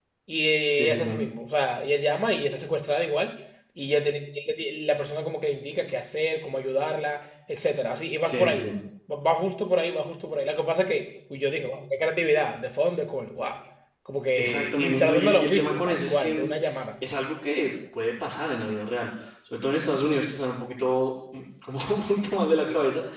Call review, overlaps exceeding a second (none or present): present